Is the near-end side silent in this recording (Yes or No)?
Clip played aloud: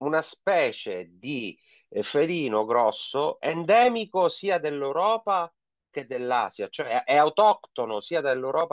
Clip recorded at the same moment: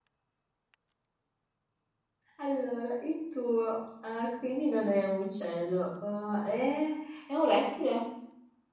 No